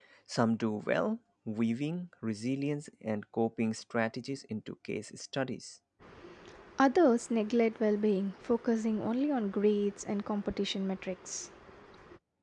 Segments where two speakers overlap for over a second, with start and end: none

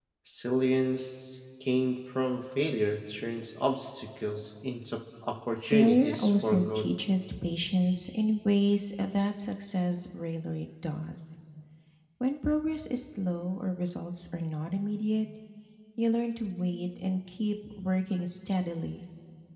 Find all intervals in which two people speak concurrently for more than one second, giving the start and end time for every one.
5.6-6.9

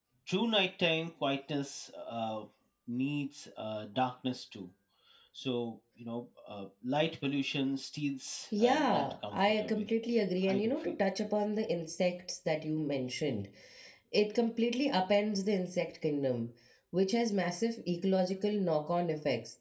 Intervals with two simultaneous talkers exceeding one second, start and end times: 8.6-9.8

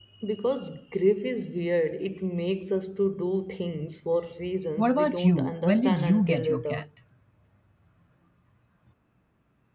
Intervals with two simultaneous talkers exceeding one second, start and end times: 4.8-6.8

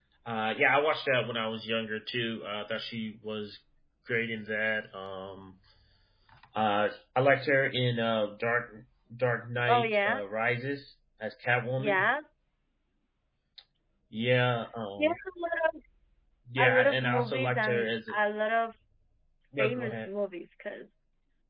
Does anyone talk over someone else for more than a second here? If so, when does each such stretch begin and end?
16.6-17.9

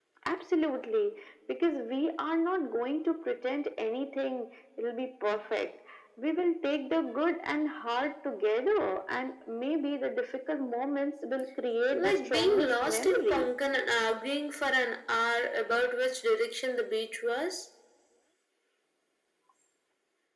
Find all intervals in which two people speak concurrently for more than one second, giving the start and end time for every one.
11.9-13.5

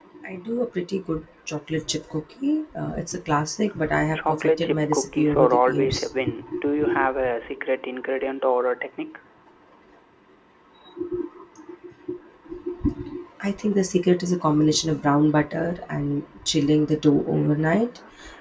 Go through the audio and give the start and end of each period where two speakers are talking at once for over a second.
4.2-6.0

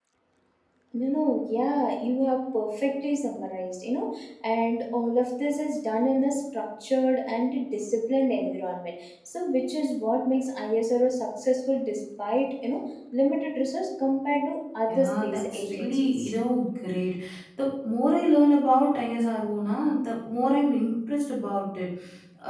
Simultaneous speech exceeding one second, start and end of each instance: 14.9-16.3

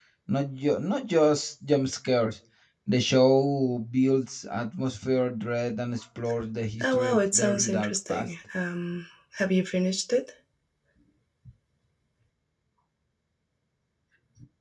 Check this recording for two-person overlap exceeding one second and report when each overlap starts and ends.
6.8-8.3

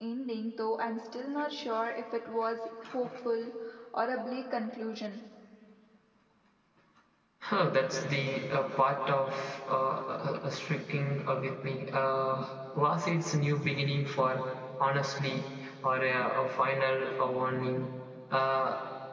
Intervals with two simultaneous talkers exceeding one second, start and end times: none

